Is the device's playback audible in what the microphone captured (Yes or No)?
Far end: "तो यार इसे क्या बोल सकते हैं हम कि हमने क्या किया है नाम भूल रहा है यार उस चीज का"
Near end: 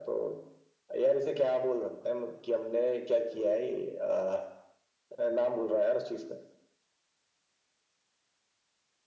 Yes